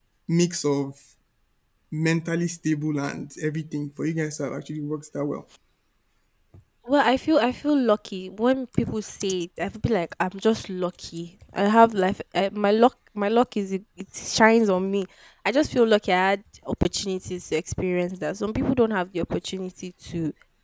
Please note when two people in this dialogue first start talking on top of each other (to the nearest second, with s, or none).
none